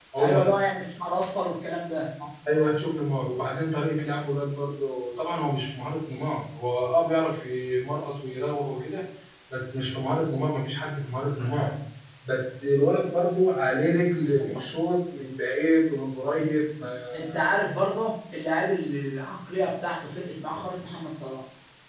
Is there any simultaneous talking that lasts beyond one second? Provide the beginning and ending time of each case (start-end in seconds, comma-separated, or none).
none